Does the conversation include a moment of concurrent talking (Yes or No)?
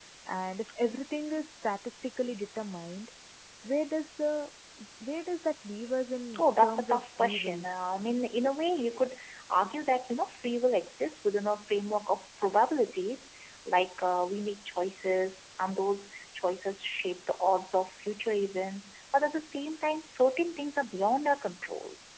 Yes